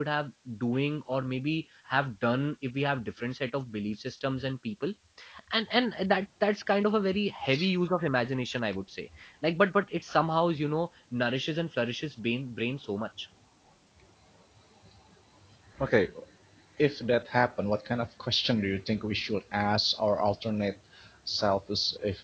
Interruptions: none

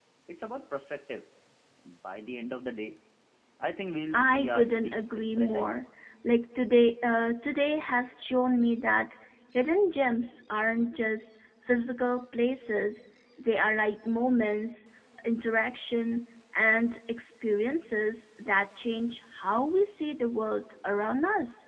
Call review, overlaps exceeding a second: present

